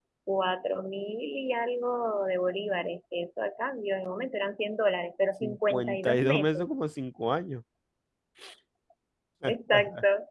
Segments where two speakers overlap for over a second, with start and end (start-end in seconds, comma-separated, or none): 5.4-6.7